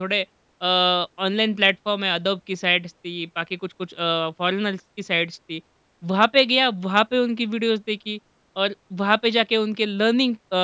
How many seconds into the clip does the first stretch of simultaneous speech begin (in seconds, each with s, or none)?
none